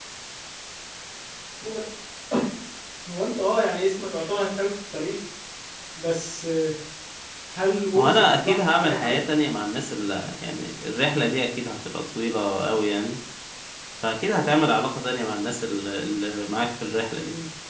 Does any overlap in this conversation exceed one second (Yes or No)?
Yes